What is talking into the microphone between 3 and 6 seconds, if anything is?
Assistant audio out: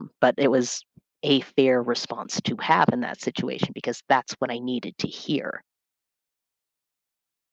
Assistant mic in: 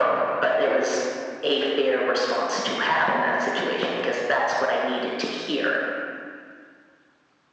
echo only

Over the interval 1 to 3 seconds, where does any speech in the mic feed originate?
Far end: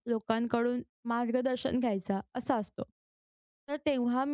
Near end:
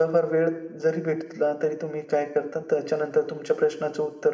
user only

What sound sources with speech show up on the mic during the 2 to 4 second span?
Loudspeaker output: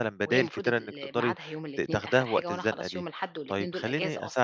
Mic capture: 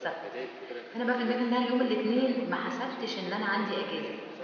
both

